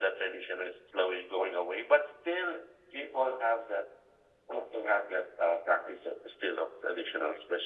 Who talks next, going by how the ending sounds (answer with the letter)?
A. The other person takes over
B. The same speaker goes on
B